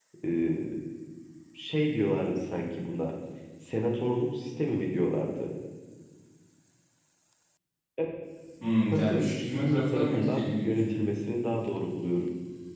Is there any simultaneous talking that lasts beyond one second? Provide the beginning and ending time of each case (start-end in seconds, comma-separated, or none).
8.9-10.9